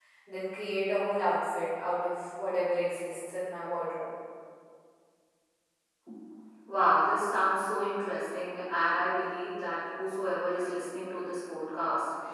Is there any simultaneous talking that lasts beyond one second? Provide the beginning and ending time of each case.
none

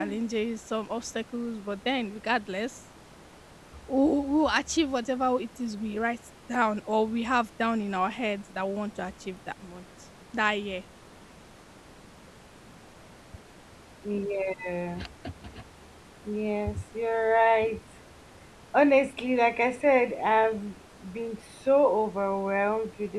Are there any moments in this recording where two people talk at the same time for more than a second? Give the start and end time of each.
none

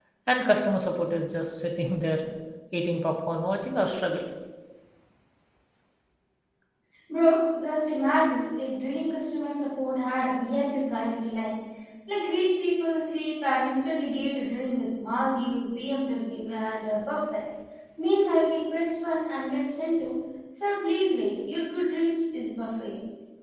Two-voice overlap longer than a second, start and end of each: none

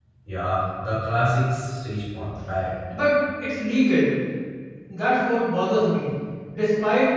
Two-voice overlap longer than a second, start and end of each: none

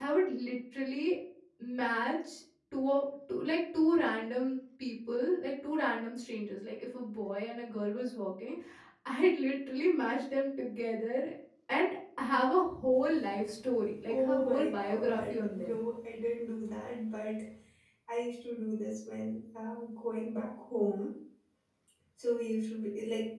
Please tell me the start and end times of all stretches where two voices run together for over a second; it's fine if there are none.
14.1-15.7

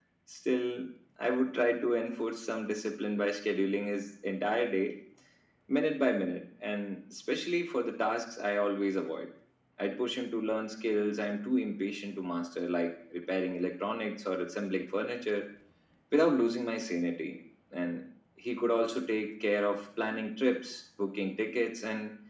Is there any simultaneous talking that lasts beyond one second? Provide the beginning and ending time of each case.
none

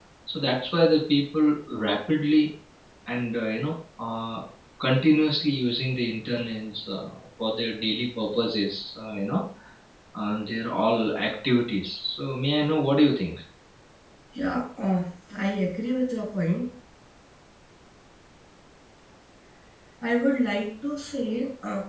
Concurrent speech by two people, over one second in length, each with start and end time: none

